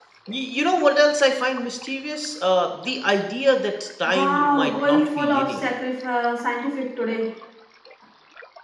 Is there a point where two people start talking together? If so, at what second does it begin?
4.0 s

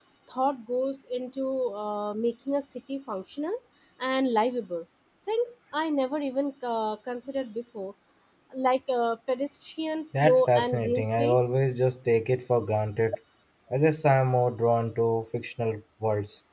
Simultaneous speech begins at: 10.1 s

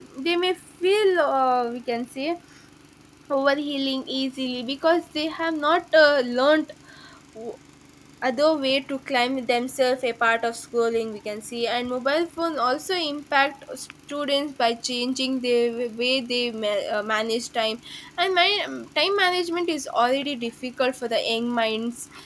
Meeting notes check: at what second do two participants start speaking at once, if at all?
none

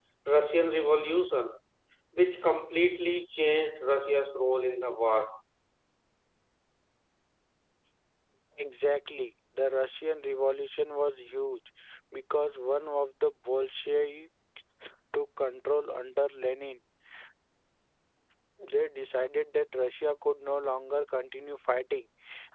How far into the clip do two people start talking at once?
none

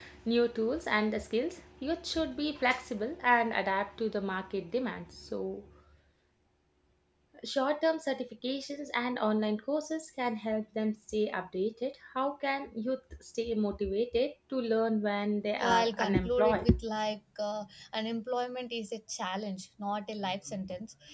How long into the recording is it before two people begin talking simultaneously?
15.6 s

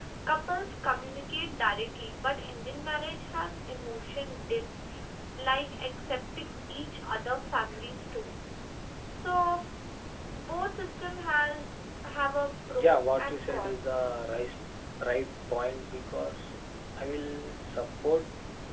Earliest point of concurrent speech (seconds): 12.8 s

